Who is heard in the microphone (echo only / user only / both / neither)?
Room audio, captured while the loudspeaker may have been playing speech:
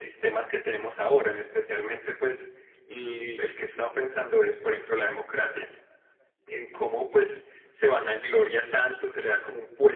echo only